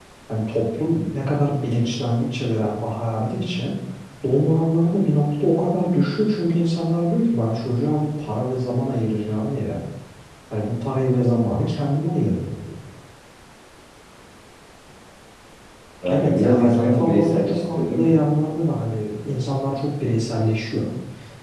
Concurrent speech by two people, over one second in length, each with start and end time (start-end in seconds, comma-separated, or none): 16.1-18.1